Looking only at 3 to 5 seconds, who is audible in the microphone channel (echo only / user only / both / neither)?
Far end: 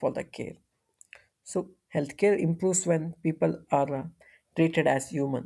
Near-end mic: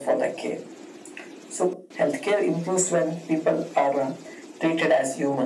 echo only